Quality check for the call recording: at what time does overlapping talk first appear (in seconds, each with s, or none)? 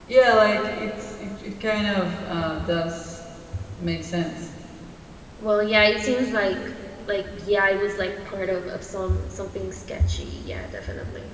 none